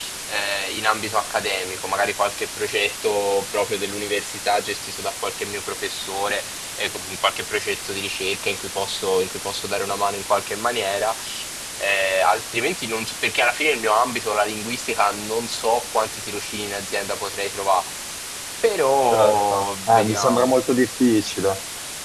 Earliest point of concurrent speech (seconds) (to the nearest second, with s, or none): 19 s